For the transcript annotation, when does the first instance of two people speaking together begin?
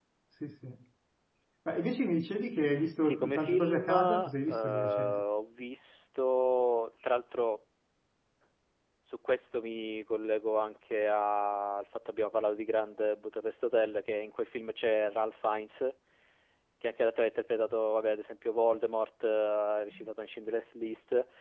3.0 s

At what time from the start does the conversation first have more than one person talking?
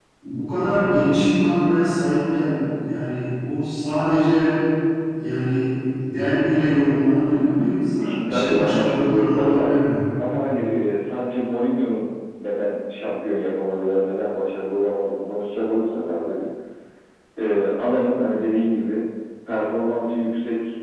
8.0 s

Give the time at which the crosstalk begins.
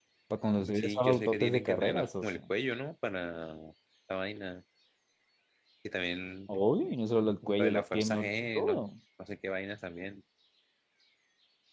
0.8 s

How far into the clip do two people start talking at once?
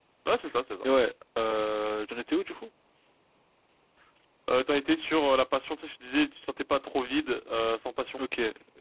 none

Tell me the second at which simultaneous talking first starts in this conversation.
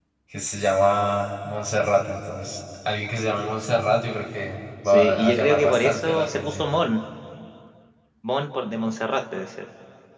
4.8 s

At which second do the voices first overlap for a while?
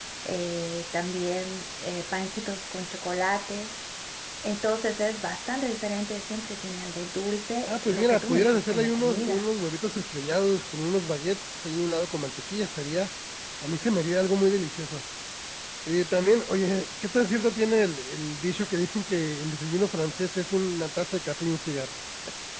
7.7 s

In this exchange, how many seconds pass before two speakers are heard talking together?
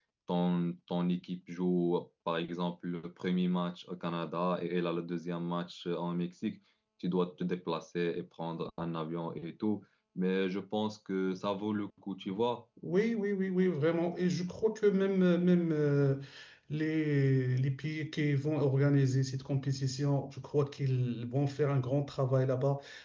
none

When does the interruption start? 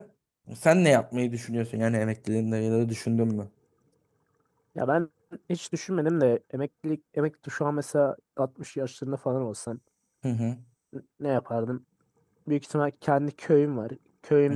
none

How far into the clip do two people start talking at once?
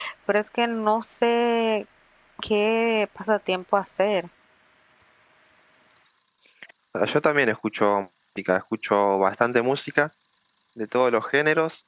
none

